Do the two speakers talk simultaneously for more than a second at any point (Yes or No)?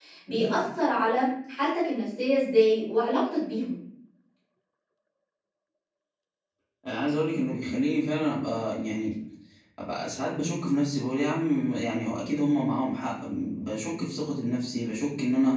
No